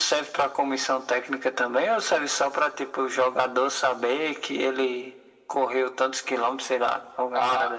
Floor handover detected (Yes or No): Yes